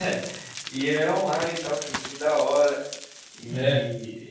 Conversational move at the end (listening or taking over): listening